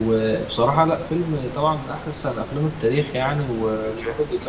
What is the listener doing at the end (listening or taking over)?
listening